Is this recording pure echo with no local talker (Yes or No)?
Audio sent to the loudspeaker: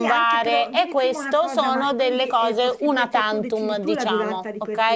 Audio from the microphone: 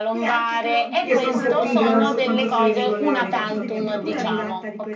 No